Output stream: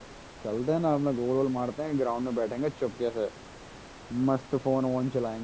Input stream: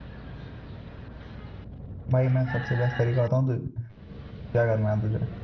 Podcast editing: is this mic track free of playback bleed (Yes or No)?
Yes